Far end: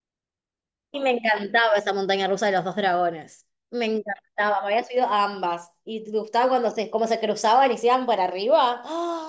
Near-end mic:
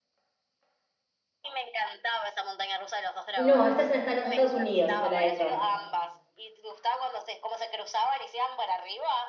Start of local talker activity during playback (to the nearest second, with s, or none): 3 s